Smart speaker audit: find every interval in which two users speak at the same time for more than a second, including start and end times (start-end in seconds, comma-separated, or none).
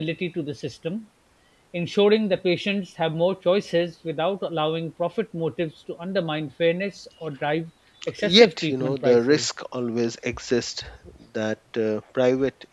8.2-9.5